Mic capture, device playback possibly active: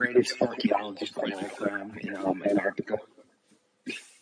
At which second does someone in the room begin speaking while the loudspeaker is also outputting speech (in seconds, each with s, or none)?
none